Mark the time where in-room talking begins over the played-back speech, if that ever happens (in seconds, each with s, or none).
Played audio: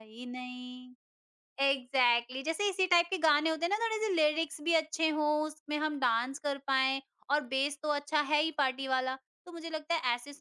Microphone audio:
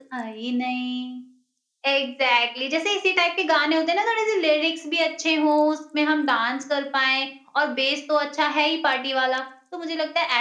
none